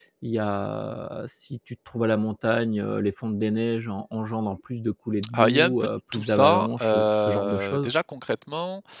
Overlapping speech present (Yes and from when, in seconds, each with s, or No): Yes, from 5.3 s